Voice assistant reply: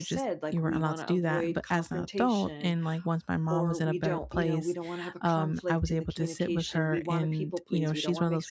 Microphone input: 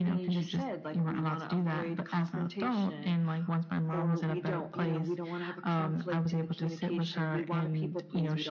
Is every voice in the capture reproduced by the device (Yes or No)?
Yes